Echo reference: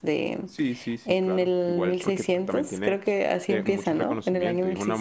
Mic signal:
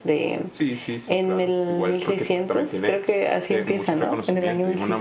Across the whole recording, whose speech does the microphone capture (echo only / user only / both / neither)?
echo only